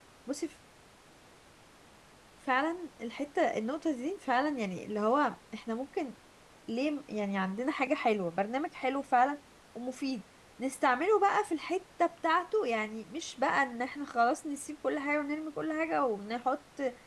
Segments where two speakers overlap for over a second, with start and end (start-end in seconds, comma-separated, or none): none